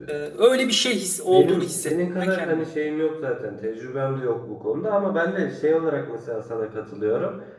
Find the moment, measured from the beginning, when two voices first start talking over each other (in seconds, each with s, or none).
1.3 s